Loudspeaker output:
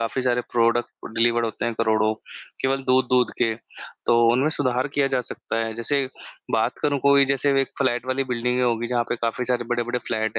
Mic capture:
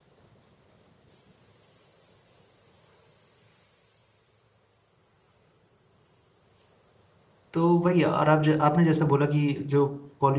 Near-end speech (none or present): present